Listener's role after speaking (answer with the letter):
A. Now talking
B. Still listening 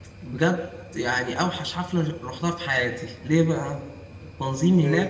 B